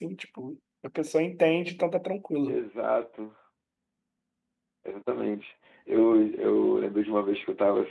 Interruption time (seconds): none

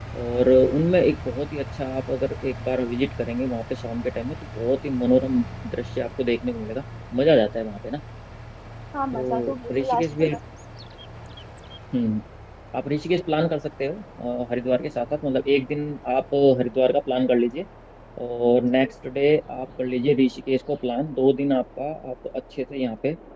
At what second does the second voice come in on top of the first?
9.1 s

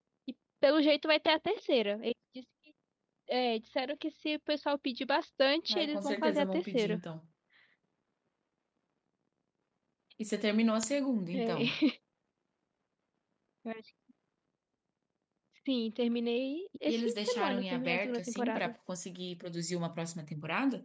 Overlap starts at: 5.7 s

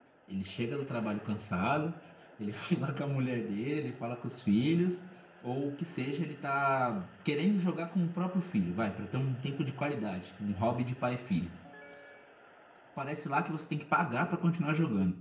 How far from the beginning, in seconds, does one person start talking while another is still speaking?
none

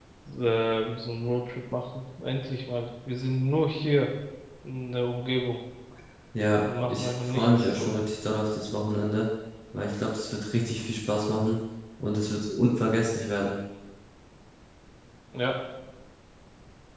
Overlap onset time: 6.6 s

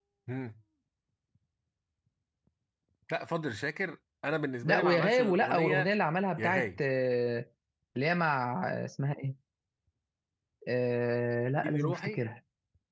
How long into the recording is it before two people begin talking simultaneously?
4.6 s

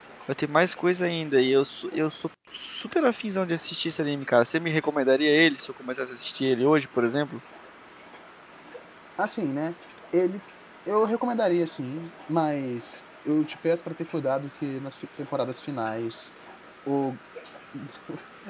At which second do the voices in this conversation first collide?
none

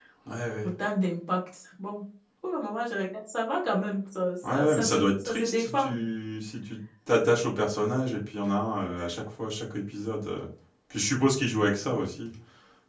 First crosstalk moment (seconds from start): 4.5 s

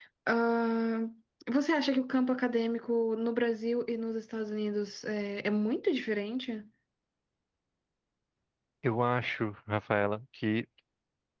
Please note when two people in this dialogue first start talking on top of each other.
none

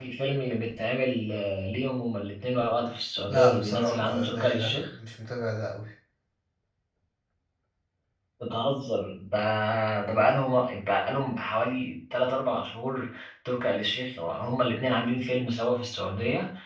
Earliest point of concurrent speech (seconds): 3.3 s

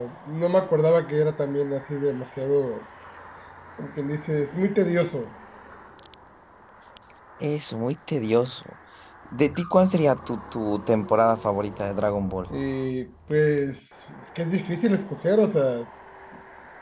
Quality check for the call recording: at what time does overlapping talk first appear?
none

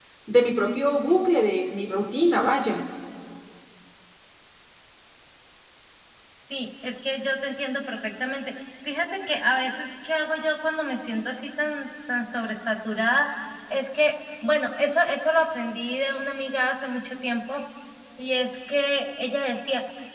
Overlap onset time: none

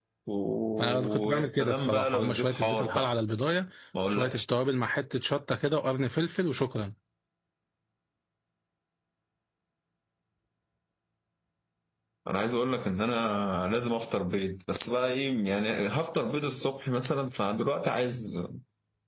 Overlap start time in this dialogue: 0.8 s

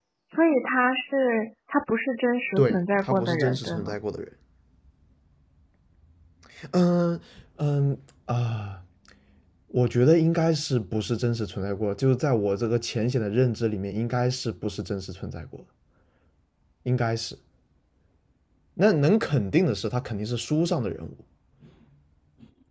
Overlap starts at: 2.6 s

